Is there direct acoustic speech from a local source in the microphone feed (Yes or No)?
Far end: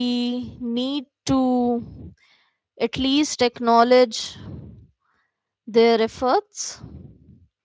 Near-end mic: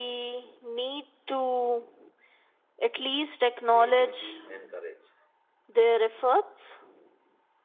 Yes